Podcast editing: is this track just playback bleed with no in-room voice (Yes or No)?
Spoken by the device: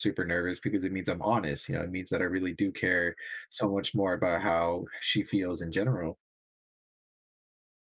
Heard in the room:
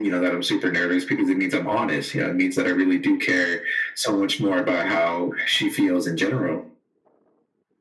Yes